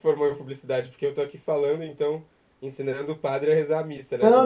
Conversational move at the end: taking over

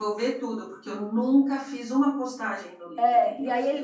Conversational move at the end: taking over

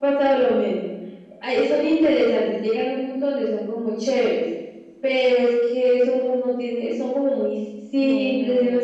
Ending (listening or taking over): listening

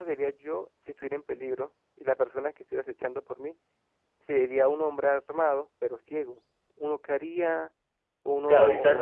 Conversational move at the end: taking over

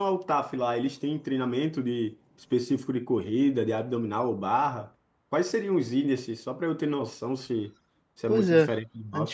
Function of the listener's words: taking over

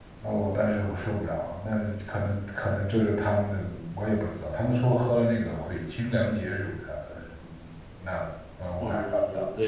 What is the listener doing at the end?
taking over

